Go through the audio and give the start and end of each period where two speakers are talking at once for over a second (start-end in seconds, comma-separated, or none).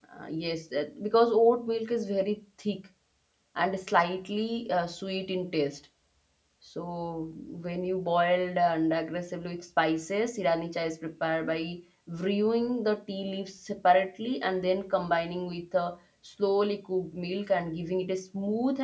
none